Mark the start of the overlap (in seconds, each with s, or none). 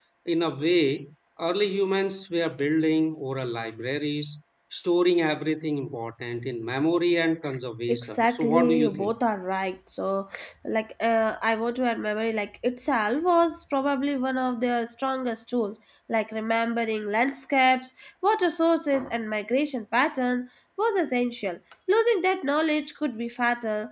7.9 s